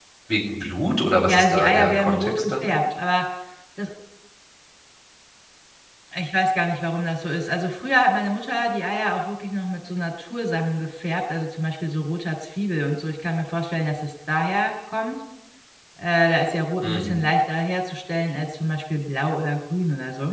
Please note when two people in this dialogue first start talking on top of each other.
1 s

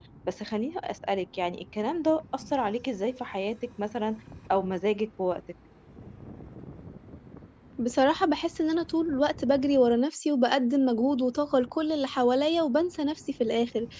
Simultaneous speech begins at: none

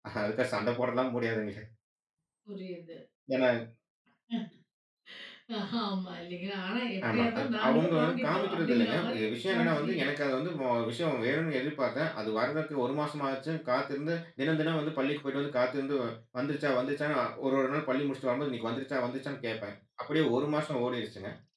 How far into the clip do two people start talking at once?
7 s

